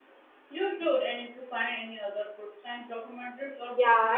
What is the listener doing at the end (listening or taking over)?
taking over